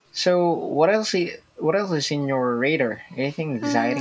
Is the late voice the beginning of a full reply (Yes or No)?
Yes